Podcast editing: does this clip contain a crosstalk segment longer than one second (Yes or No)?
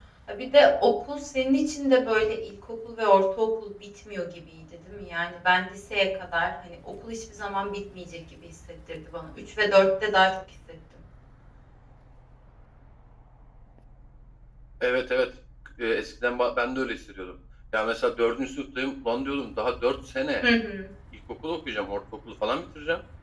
No